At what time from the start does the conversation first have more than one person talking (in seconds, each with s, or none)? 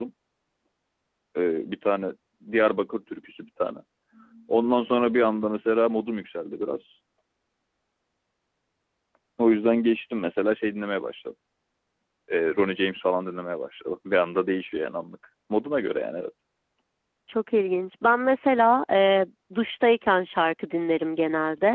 none